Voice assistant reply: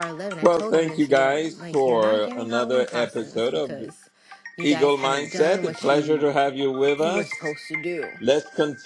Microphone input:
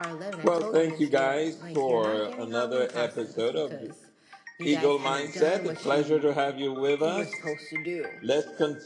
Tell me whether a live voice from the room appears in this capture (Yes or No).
No